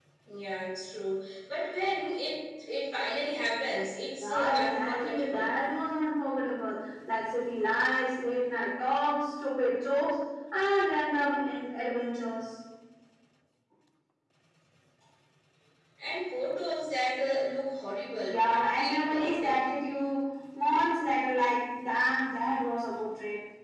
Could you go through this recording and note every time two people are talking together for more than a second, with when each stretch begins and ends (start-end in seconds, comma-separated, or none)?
4.2-5.5, 18.3-19.6